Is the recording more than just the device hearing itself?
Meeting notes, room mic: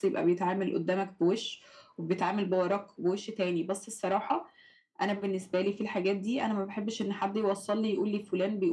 No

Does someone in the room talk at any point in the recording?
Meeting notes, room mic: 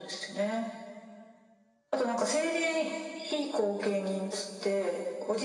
No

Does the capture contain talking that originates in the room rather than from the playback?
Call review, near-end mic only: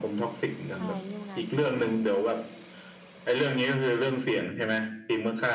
Yes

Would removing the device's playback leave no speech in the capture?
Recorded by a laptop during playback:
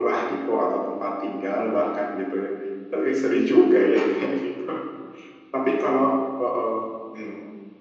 Yes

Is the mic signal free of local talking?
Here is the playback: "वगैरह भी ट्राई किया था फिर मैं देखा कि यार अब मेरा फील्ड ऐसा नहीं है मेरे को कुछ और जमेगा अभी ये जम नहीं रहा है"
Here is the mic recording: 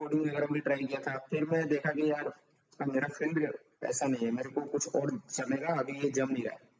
Yes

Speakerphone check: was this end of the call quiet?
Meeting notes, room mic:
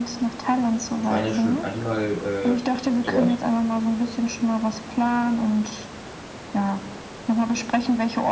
No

